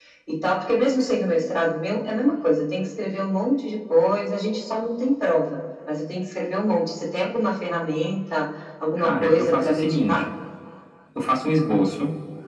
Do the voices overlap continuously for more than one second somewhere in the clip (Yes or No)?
Yes